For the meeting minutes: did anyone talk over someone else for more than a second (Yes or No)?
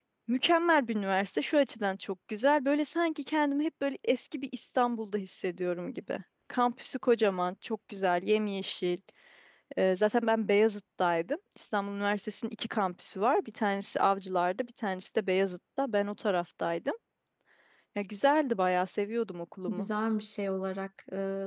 No